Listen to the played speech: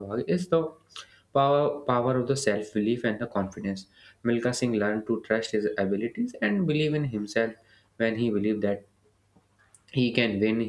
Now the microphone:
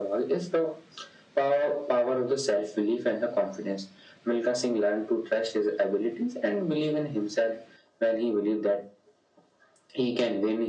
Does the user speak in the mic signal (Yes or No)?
No